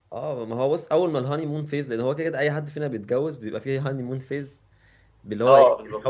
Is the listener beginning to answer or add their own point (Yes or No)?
No